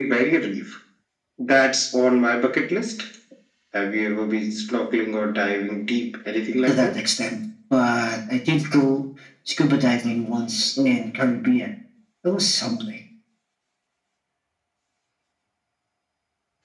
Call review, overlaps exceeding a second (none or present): none